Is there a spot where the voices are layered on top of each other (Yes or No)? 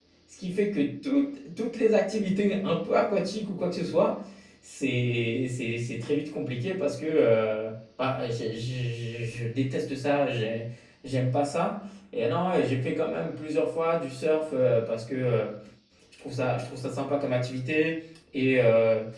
No